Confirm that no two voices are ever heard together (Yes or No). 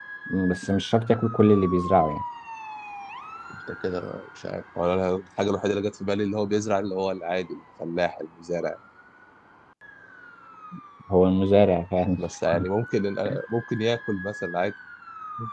Yes